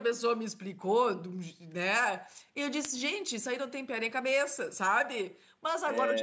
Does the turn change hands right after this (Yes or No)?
No